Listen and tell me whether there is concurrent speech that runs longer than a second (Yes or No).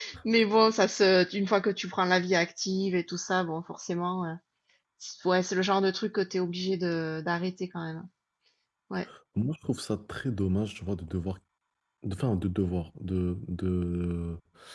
No